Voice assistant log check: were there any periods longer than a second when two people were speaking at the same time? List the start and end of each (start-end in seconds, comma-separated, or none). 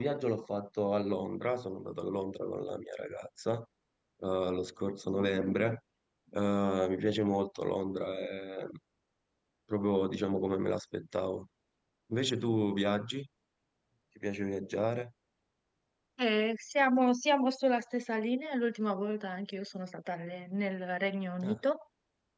none